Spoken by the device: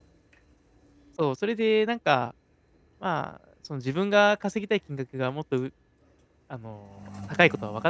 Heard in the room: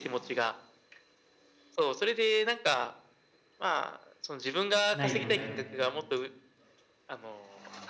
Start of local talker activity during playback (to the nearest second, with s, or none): 5 s